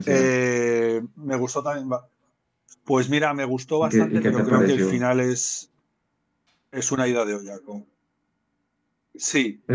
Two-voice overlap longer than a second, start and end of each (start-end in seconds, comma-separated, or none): 3.8-5.0